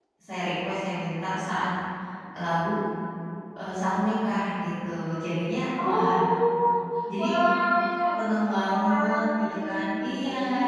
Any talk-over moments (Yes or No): Yes